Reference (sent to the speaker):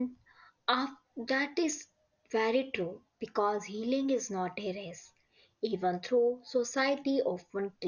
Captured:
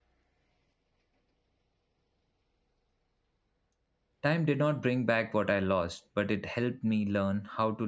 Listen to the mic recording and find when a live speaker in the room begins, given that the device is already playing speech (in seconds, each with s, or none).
4.2 s